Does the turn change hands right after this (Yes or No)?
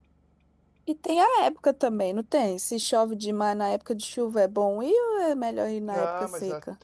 Yes